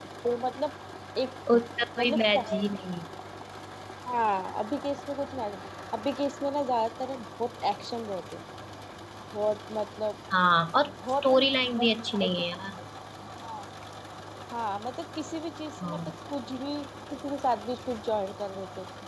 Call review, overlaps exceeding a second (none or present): present